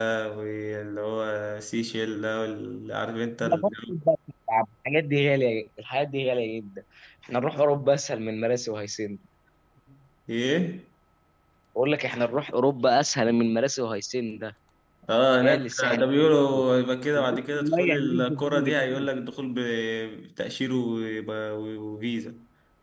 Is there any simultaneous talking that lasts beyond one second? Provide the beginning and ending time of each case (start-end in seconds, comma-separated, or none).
15.4-16.6, 17.2-19.1